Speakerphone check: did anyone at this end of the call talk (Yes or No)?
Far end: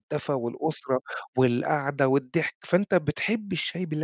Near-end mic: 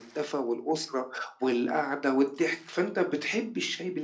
No